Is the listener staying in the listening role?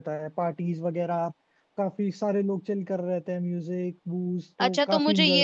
No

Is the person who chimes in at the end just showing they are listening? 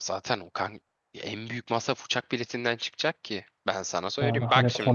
No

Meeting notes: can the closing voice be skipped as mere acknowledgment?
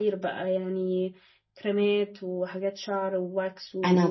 No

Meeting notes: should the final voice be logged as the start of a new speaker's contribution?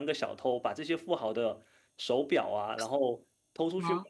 No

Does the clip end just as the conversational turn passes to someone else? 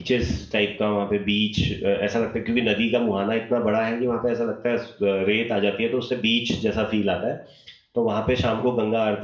No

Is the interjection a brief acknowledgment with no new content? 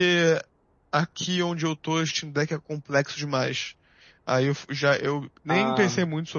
Yes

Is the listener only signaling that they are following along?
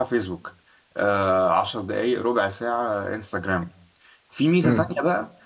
Yes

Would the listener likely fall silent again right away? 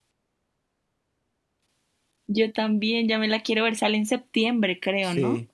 No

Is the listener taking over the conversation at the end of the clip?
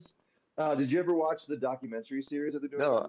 Yes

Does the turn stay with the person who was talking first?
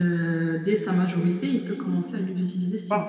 No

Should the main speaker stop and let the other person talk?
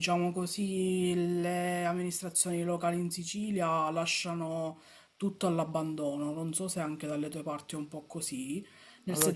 Yes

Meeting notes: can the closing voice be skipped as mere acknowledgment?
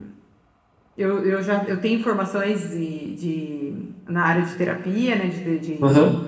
Yes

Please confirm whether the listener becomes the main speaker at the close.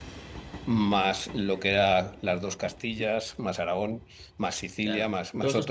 Yes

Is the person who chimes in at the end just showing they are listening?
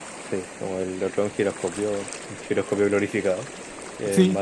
Yes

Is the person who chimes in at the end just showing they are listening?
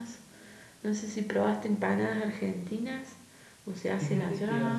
No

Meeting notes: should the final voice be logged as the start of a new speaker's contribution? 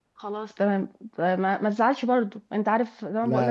No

